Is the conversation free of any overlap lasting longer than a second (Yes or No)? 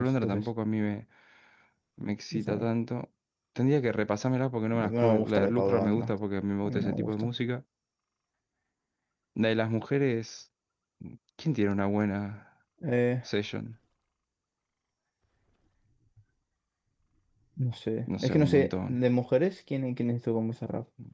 No